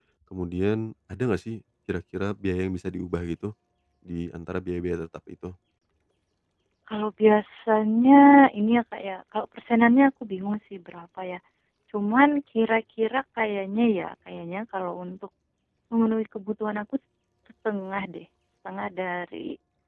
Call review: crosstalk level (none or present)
none